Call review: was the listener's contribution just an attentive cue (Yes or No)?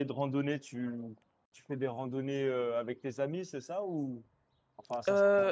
No